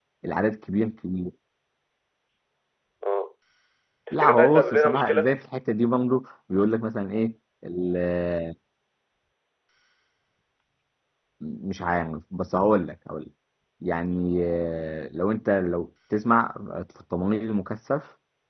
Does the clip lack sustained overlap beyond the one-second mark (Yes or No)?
No